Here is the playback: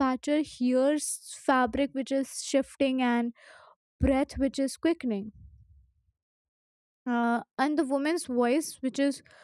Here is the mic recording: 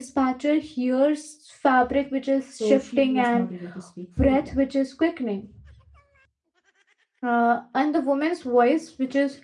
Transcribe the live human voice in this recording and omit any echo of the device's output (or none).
So, she was not able to speak freely.